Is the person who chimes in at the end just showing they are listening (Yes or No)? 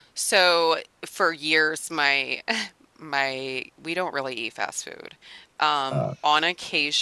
Yes